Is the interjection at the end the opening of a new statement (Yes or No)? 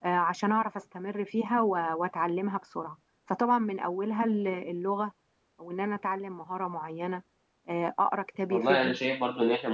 Yes